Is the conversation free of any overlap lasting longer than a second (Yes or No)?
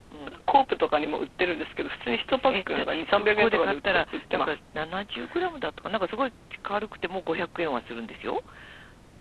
No